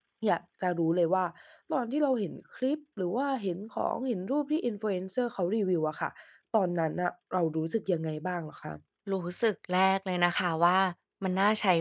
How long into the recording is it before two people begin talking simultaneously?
none

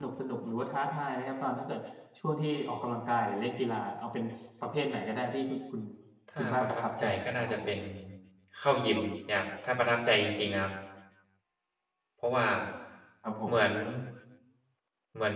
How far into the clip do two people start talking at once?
6.4 s

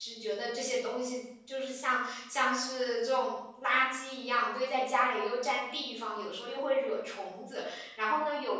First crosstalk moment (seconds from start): none

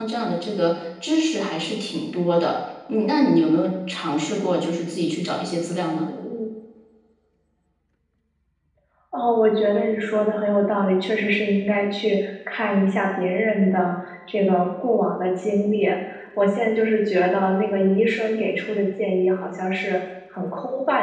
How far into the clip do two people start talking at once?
none

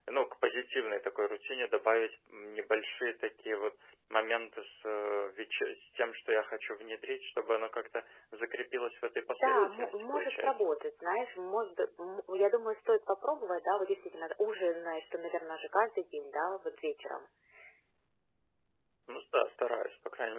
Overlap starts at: 9.3 s

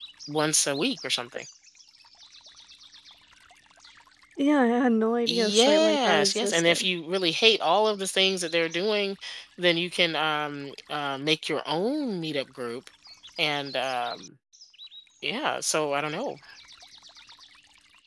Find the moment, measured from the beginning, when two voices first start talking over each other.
5.3 s

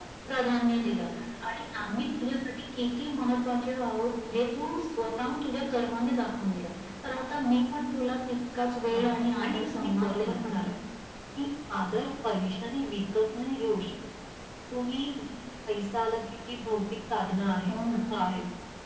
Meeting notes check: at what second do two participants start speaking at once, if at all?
8.9 s

